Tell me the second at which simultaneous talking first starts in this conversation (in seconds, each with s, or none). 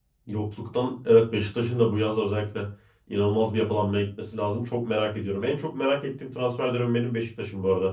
none